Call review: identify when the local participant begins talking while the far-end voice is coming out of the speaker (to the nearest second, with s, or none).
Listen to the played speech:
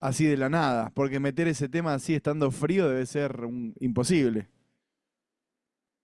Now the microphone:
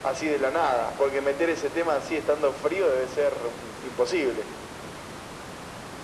none